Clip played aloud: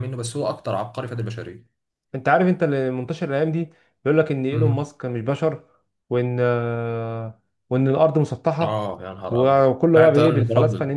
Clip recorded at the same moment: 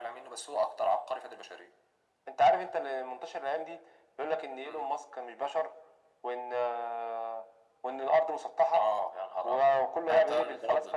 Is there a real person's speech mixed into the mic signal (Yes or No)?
No